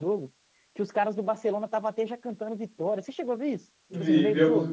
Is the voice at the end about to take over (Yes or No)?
Yes